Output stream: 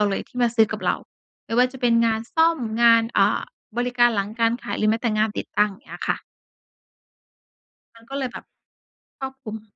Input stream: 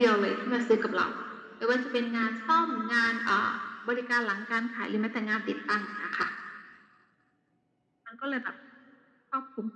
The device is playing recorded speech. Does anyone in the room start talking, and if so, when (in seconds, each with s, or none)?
none